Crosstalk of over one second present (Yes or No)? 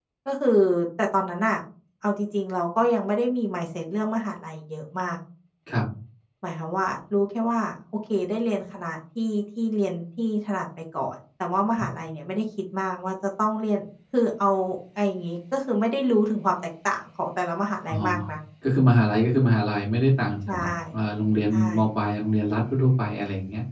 No